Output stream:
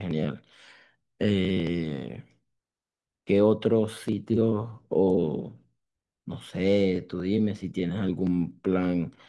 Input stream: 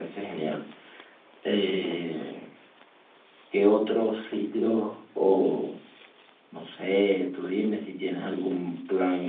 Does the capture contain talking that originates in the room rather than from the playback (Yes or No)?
No